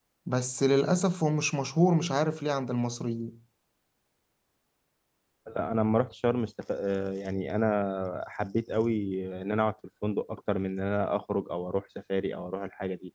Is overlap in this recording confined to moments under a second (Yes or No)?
Yes